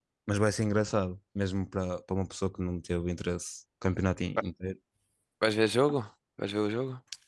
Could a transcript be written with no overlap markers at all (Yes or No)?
Yes